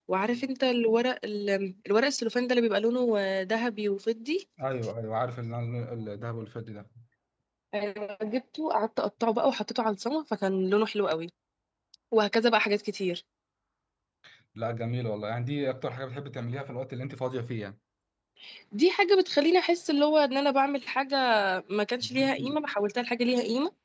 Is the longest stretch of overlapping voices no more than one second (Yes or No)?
Yes